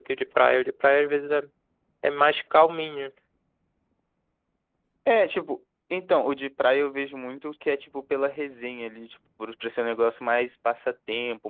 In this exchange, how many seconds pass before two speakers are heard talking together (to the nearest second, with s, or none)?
none